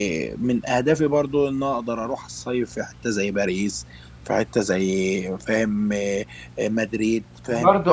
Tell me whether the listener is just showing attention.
No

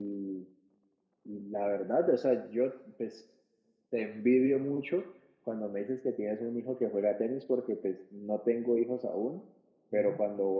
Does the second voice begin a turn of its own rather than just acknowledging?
No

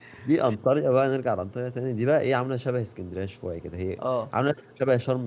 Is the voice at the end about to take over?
No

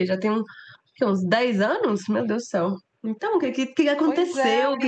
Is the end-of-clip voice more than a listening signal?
Yes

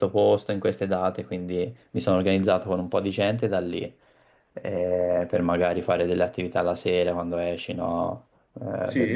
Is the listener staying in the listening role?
Yes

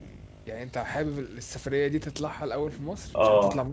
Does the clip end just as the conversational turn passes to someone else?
Yes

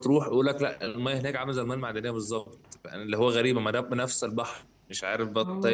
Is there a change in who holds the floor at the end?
Yes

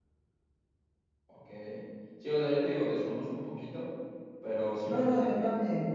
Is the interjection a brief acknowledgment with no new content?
No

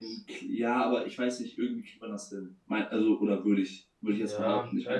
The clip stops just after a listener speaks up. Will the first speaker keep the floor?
No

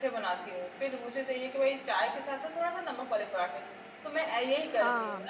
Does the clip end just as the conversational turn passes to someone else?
No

